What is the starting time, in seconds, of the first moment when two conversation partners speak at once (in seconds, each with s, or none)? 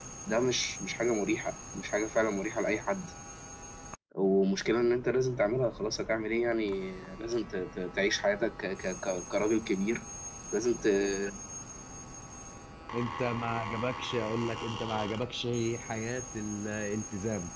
none